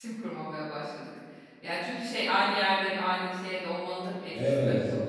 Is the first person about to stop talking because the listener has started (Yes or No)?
Yes